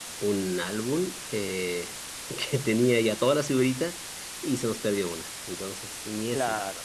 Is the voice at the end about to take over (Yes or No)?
Yes